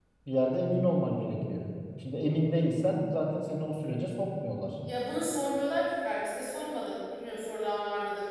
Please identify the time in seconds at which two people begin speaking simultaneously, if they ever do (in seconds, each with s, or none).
none